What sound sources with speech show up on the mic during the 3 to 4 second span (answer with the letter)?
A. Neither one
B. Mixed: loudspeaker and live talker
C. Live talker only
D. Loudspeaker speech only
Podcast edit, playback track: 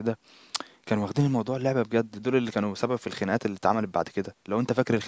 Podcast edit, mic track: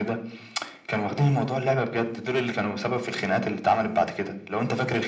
D